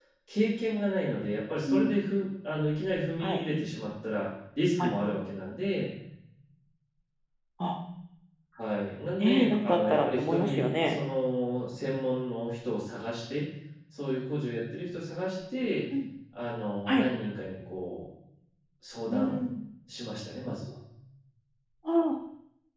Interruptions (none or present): present